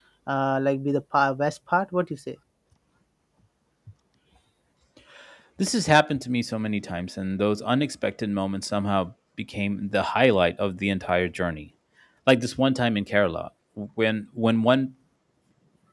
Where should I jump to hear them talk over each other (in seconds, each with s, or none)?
none